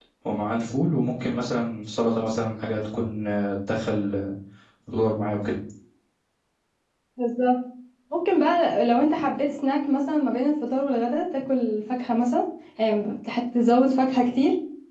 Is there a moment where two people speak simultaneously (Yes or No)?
No